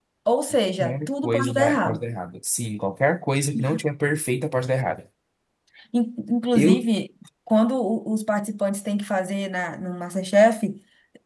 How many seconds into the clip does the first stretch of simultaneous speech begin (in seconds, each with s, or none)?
0.8 s